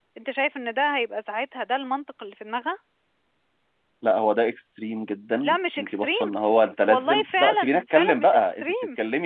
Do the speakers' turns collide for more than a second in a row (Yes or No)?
Yes